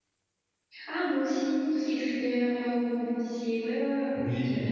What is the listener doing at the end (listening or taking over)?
taking over